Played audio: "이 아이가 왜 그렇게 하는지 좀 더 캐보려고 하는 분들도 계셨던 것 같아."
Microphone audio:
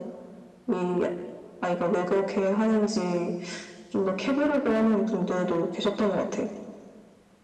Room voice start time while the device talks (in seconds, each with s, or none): none